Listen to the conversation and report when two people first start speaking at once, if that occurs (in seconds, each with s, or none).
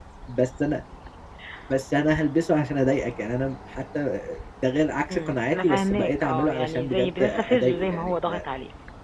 5.1 s